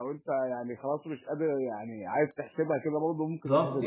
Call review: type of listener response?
taking over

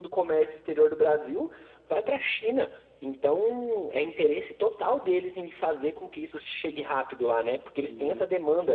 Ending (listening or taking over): listening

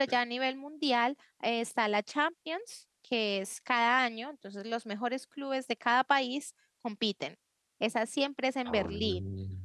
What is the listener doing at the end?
listening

